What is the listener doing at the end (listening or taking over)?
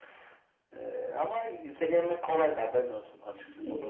taking over